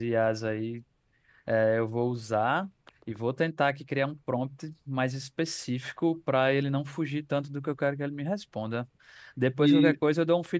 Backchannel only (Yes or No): Yes